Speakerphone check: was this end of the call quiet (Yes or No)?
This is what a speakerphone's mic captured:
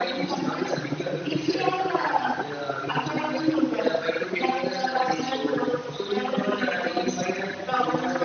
Yes